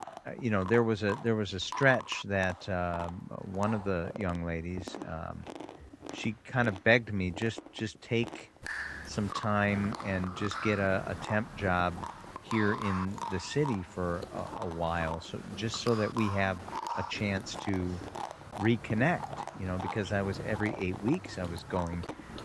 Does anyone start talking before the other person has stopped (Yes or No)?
No